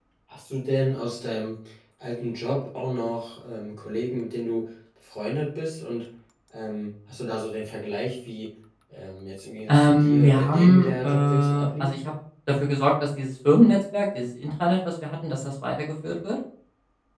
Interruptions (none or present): present